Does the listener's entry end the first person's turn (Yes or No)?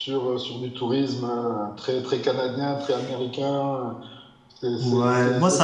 Yes